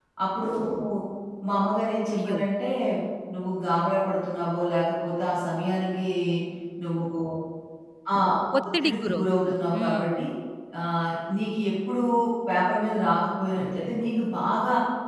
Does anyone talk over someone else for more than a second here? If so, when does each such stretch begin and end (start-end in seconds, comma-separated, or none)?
8.8-10.1